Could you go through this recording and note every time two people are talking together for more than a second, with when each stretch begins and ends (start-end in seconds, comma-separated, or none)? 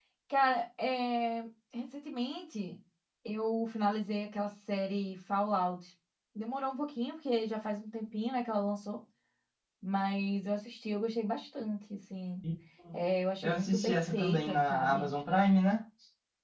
13.4-15.1